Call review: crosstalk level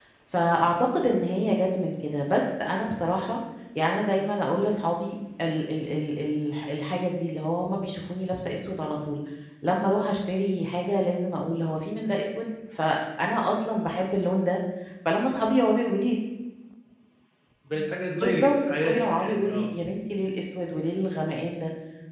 present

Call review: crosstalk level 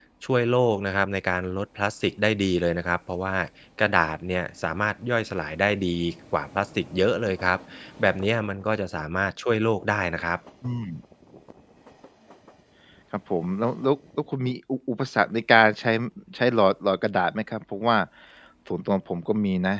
none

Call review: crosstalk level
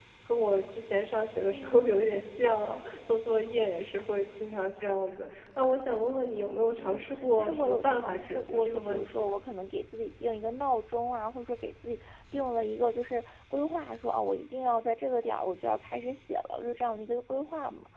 present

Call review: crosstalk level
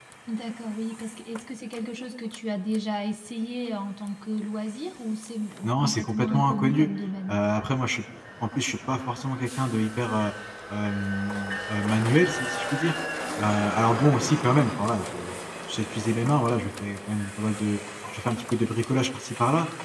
present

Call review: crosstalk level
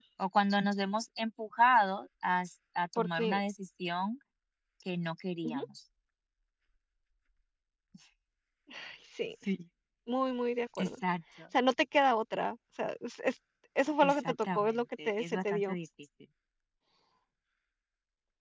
present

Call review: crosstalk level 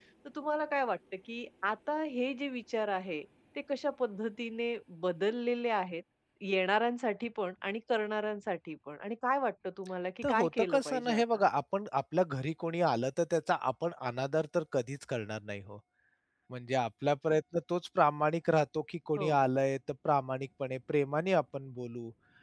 present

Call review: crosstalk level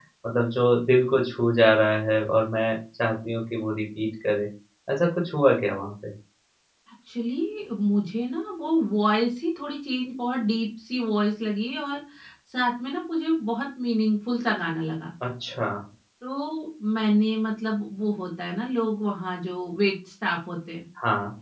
none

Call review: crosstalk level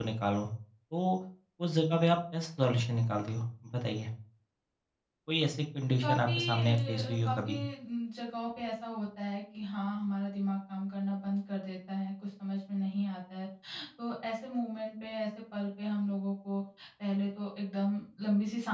present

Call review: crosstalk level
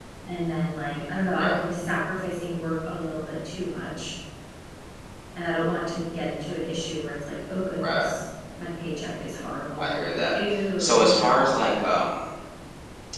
present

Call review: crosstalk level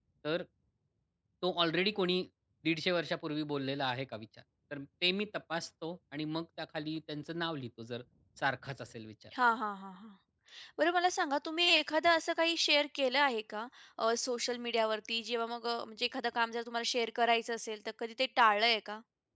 none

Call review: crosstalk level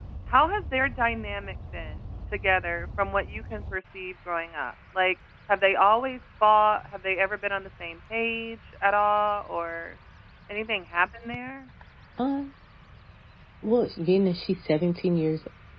none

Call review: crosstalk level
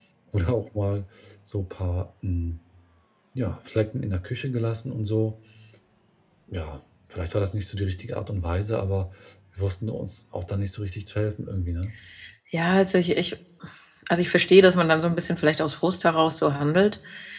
none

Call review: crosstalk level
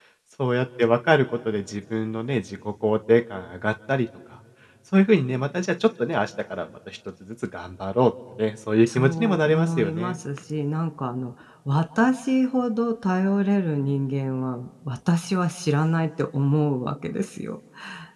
present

